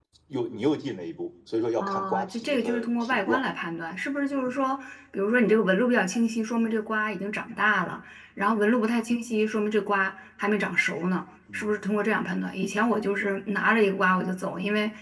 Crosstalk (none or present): present